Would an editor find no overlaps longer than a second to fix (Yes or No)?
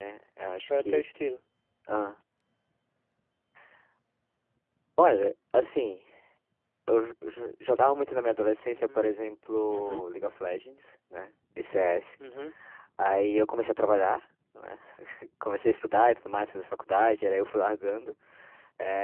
Yes